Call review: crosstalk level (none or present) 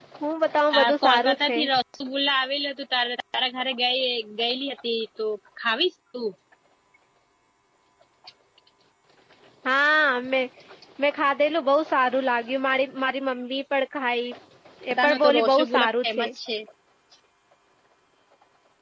present